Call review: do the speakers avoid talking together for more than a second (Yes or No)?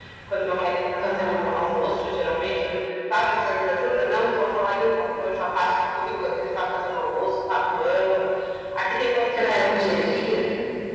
Yes